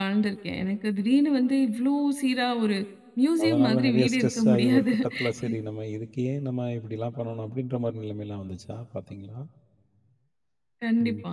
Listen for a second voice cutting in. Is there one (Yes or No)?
Yes